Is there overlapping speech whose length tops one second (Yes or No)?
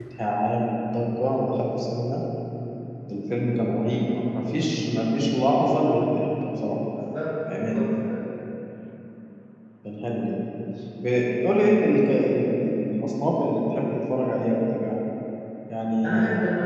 No